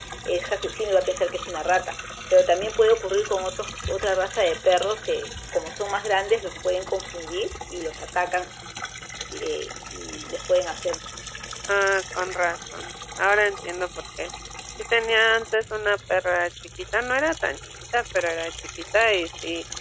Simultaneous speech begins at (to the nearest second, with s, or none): none